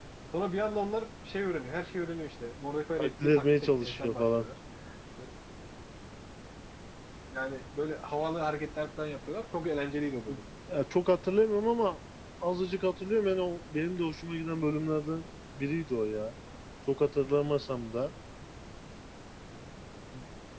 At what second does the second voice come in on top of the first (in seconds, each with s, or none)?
3.0 s